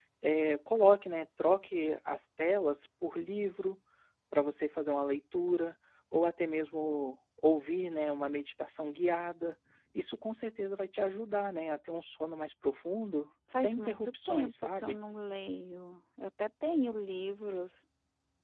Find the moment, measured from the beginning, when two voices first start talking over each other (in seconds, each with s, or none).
13.5 s